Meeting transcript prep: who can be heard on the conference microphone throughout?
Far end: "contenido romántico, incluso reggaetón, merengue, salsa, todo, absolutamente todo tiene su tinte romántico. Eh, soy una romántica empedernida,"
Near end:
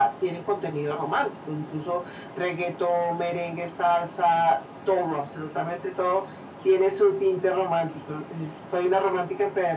echo only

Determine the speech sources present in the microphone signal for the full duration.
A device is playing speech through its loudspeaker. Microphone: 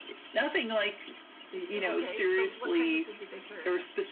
both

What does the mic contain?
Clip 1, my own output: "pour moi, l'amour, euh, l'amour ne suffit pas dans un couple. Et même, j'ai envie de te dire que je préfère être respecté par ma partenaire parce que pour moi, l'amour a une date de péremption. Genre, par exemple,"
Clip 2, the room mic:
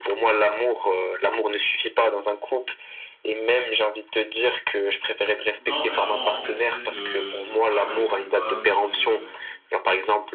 both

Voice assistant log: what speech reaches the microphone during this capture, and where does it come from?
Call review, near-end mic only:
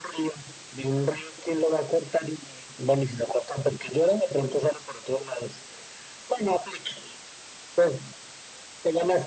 echo only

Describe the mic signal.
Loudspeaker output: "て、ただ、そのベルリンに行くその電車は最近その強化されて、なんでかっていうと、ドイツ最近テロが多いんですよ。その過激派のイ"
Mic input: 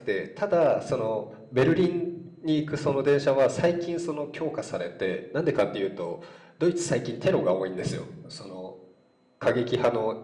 echo only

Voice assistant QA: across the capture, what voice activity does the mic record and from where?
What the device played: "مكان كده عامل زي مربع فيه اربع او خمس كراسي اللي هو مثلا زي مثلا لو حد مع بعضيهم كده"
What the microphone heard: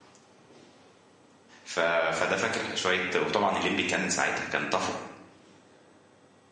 user only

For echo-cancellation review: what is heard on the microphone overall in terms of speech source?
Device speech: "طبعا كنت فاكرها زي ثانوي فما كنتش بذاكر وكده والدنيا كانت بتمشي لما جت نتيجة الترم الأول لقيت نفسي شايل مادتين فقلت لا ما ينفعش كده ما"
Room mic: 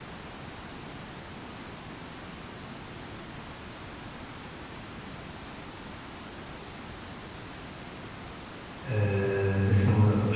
user only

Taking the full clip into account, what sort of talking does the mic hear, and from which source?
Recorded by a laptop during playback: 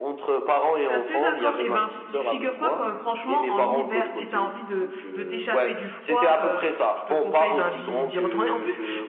both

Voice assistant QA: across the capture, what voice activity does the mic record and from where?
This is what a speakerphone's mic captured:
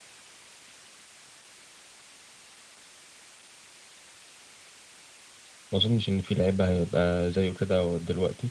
user only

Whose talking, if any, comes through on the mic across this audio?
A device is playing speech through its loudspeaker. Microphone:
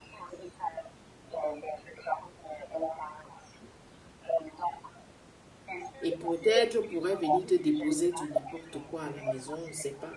both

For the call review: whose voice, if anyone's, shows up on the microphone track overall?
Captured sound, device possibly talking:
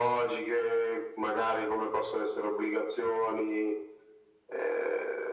echo only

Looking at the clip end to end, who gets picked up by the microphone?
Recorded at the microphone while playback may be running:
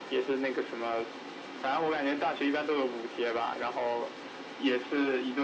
echo only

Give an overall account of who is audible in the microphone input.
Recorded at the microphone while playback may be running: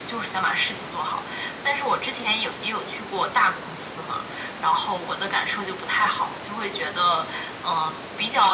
echo only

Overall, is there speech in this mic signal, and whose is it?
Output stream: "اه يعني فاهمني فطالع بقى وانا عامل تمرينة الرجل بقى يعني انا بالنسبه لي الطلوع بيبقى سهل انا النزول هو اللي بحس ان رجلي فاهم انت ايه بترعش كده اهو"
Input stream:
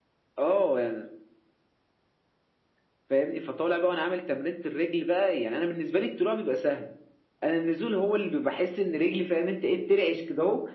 echo only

